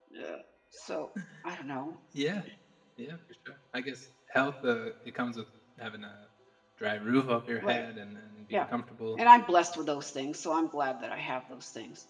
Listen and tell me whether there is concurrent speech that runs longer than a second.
No

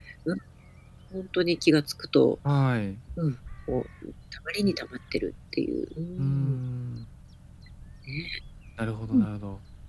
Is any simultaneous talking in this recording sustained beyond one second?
No

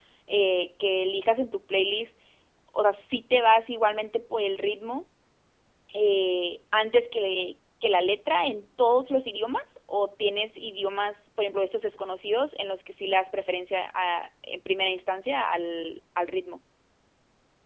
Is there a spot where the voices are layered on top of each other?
No

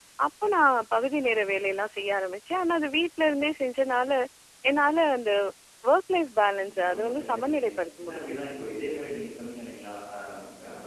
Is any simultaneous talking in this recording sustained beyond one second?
Yes, from 6.6 s

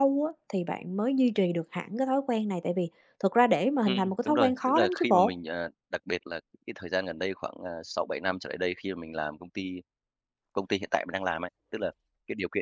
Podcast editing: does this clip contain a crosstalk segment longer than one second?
Yes, from 3.8 s

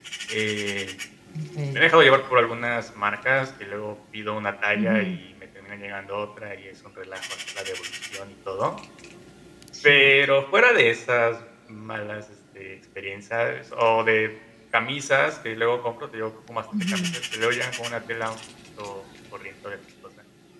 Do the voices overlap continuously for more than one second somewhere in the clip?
No

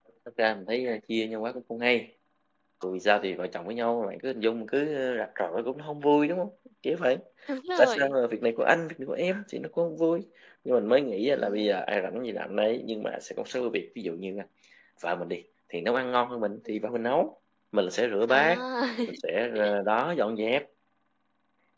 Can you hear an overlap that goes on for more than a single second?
No

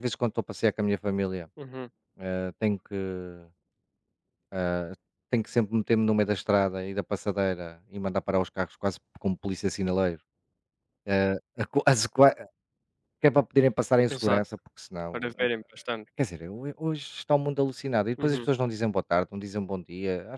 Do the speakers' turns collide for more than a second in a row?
No

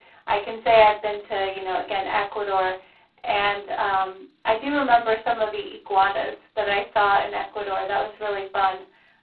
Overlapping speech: No

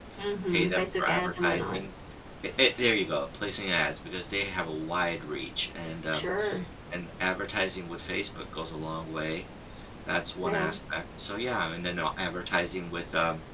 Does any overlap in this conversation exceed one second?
Yes, from 0.5 s

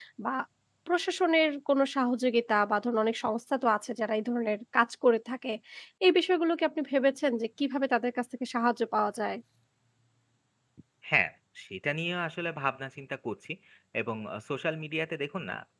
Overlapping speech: No

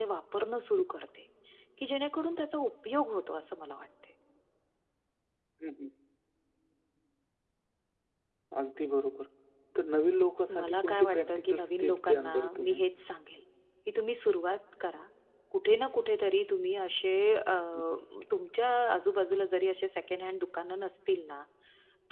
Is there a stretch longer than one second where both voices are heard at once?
Yes, from 10.6 s

